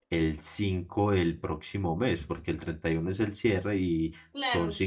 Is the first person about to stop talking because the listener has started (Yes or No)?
No